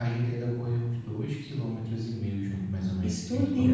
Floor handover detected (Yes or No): No